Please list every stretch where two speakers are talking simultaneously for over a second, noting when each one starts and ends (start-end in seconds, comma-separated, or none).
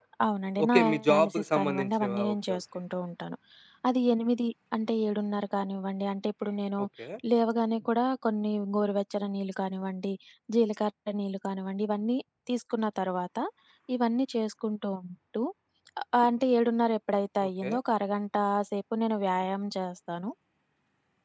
0.6-2.6